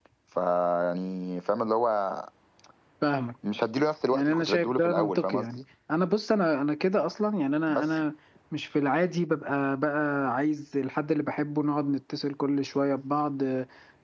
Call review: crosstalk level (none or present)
present